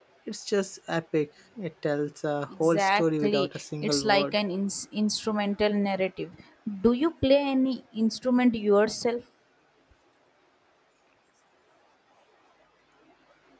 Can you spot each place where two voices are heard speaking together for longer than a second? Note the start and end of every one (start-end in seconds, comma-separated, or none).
2.6-4.4